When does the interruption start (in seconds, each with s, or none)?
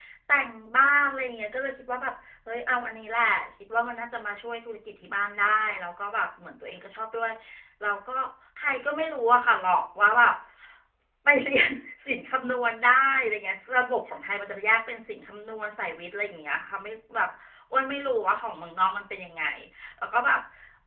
none